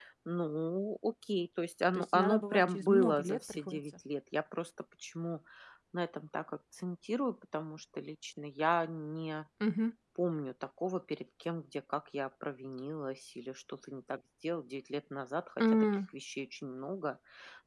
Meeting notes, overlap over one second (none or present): present